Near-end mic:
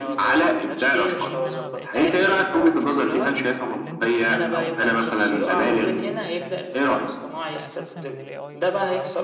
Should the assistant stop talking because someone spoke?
Yes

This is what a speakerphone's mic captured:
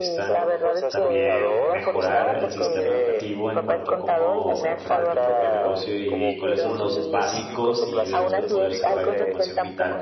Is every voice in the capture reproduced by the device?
No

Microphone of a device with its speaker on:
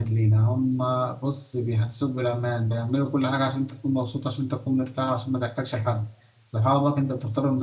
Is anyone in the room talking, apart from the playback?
Yes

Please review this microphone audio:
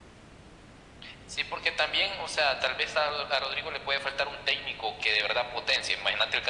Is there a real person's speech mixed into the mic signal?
No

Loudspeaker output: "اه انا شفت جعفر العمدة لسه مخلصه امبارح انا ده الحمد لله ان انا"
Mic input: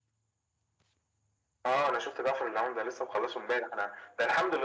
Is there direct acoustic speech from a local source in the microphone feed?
No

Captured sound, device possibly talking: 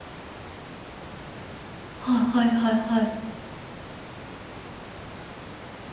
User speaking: Yes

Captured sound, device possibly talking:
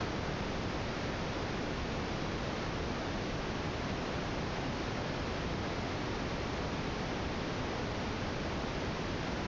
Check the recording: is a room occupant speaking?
No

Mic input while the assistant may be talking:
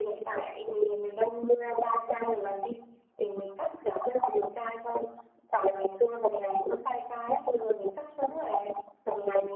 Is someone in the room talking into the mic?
No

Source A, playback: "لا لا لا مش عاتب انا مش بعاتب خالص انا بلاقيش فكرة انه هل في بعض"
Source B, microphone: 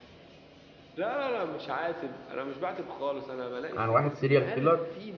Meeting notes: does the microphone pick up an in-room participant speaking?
Yes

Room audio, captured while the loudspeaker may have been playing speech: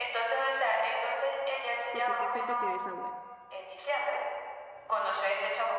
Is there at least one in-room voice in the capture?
Yes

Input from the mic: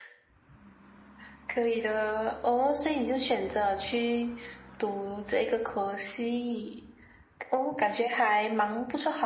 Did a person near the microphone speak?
No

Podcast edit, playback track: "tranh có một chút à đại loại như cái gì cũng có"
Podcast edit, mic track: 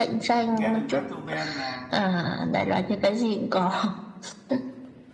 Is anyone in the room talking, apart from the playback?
Yes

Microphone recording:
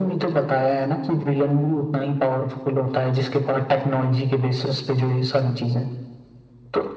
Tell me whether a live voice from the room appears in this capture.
No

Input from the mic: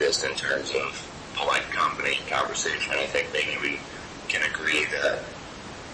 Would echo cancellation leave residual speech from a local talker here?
No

